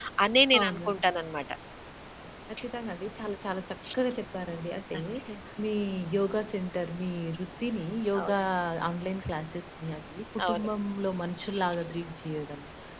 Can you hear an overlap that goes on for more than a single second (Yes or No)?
No